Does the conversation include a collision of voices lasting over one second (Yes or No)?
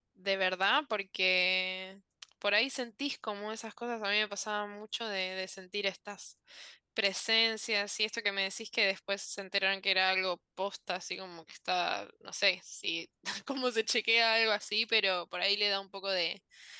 No